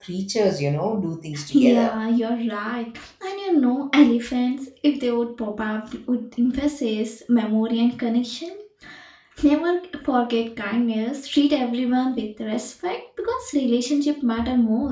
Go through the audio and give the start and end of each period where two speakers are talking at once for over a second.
none

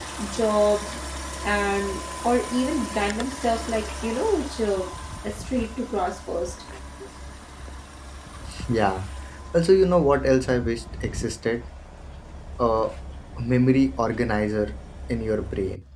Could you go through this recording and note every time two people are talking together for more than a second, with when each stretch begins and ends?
none

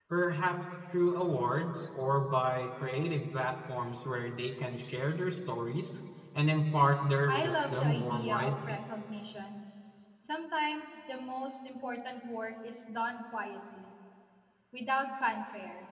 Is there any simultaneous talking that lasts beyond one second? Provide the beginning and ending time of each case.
7.3-8.8

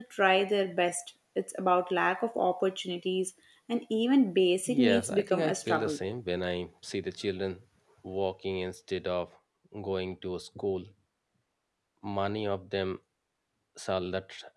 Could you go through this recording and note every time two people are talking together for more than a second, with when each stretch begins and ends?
4.8-6.0

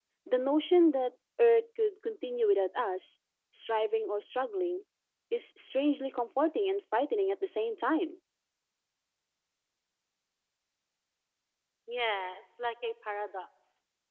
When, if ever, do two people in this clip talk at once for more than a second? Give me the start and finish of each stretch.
none

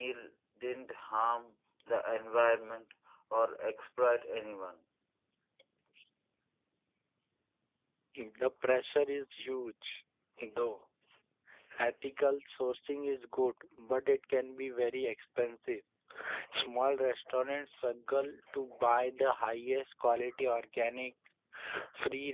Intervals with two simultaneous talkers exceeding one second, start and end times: none

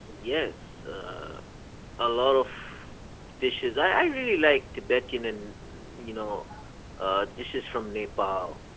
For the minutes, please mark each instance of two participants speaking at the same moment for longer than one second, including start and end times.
none

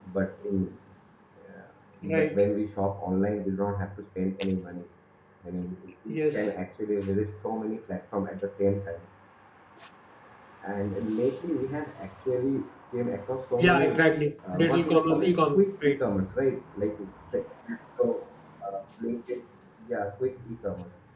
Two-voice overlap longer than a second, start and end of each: 14.5-16.0

